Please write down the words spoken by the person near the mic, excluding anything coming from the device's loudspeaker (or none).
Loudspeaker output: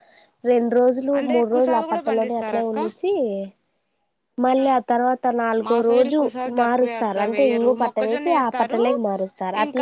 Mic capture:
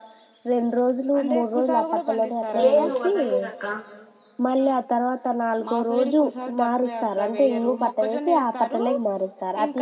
లేదు వదల్లేదక్క